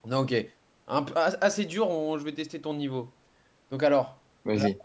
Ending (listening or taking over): listening